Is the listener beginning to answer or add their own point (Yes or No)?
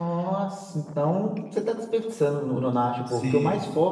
No